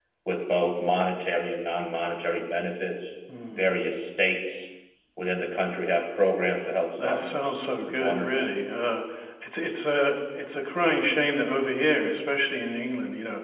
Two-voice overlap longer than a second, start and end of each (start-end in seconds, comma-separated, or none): 7.0-8.4